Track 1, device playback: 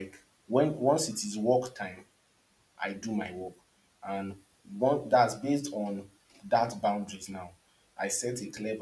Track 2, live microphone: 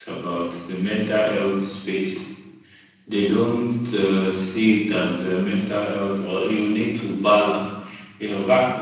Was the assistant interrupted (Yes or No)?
Yes